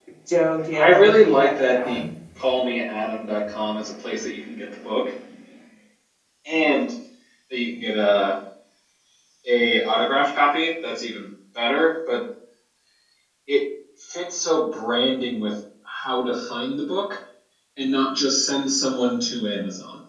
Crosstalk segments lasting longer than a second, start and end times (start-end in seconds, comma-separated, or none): 0.7-2.0